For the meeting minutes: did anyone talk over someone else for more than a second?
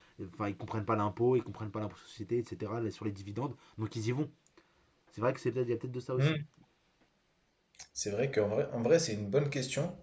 No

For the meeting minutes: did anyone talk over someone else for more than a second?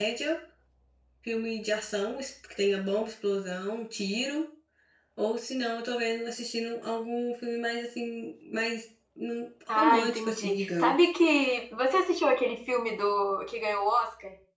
Yes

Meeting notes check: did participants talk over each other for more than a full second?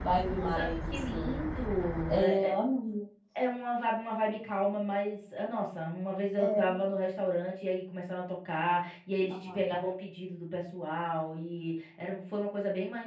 Yes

